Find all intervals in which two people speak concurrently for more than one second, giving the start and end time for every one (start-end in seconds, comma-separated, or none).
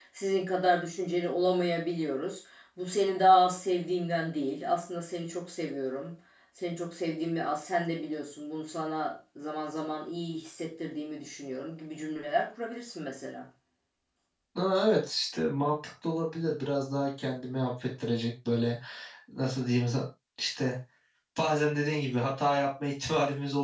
none